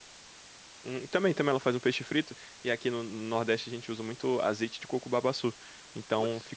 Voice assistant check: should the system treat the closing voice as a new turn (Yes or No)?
No